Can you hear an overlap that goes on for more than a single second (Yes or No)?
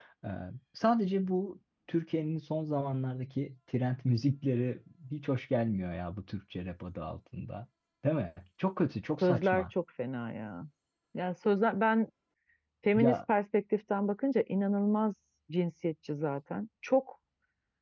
No